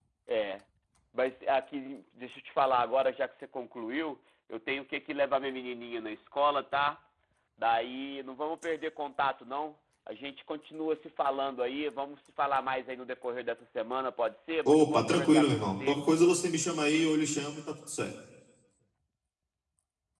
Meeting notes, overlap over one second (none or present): present